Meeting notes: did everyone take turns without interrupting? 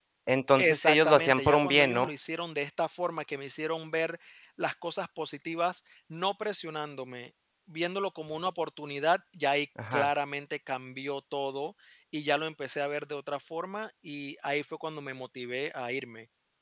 No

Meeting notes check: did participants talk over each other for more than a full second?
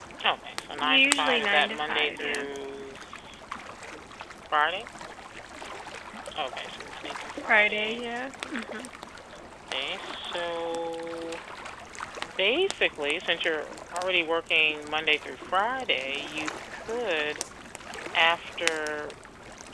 Yes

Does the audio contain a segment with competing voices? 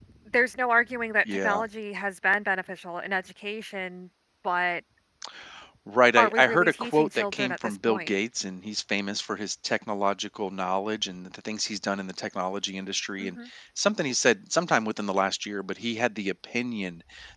Yes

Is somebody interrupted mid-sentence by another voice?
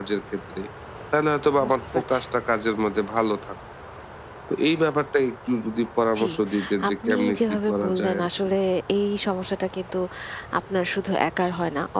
Yes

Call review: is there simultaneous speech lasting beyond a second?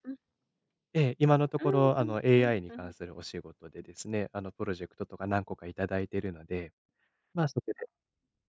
Yes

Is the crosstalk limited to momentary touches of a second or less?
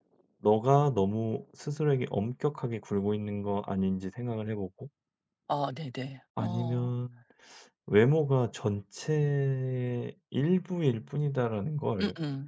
Yes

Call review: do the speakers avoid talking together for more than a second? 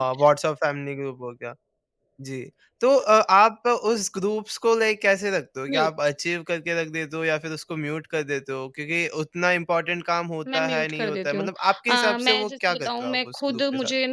No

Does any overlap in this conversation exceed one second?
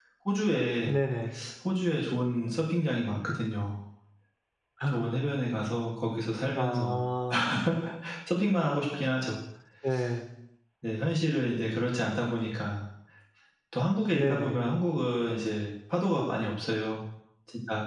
No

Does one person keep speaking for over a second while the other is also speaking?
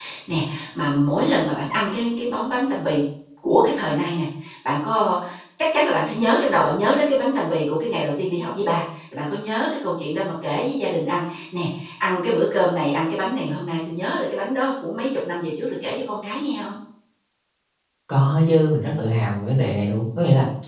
No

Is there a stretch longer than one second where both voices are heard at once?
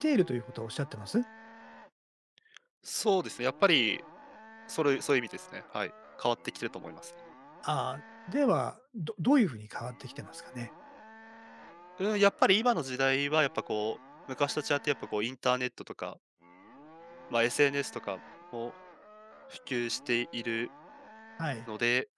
No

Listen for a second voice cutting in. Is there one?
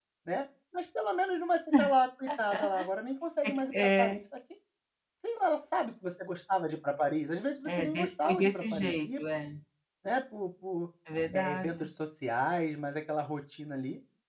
Yes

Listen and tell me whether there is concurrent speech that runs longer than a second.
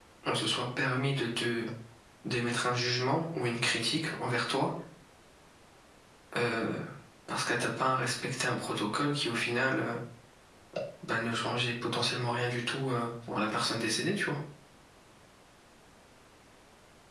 No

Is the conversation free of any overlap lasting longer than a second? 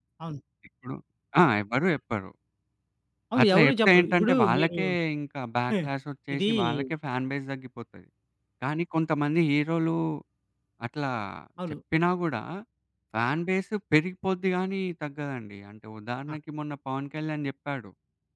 No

